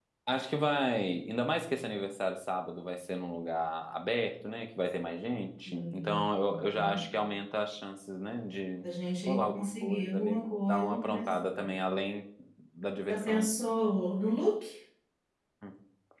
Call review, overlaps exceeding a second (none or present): present